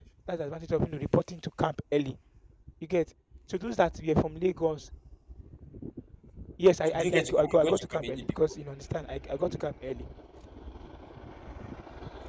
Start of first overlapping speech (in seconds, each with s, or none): 6.9 s